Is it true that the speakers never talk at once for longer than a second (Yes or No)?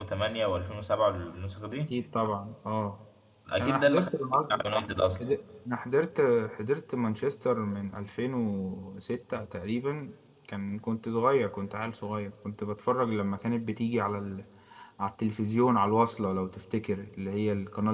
Yes